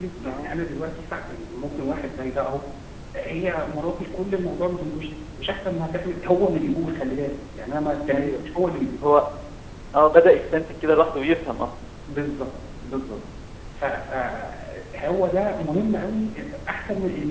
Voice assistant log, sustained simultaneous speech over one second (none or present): none